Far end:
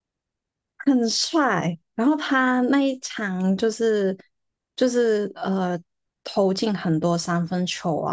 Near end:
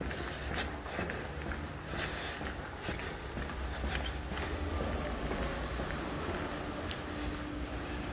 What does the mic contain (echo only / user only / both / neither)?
neither